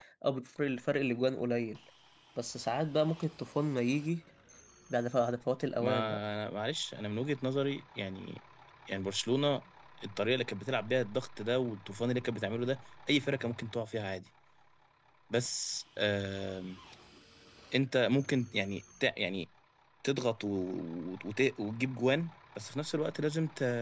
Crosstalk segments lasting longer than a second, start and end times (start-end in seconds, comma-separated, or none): none